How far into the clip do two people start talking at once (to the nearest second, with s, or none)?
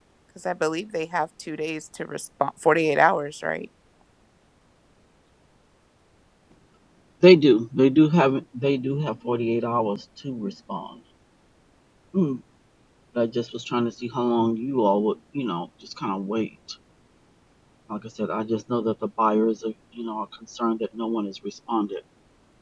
none